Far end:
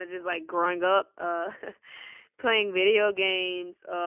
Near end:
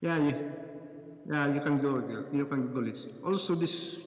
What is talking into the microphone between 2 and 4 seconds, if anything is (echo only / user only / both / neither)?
user only